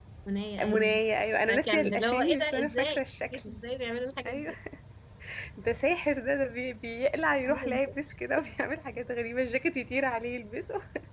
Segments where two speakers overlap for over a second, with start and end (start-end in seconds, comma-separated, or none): 1.7-3.0